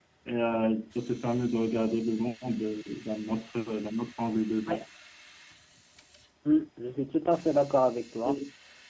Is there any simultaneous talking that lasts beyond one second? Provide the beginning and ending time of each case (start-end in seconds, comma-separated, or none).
none